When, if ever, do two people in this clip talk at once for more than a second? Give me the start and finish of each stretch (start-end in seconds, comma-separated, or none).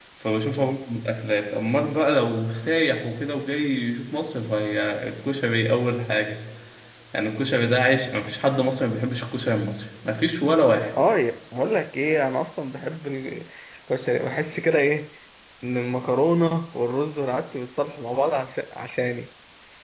none